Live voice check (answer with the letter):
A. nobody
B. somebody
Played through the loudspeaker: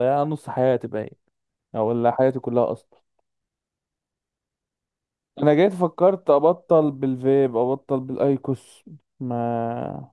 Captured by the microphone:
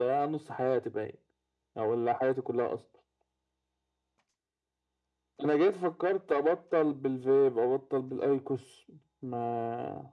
A